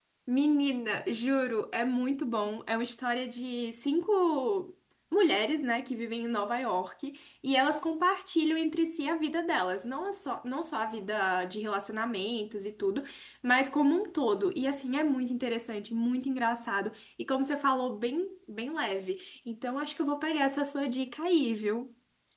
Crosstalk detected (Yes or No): No